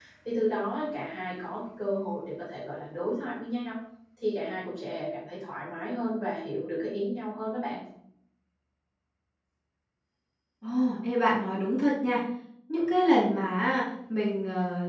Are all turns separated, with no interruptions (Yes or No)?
Yes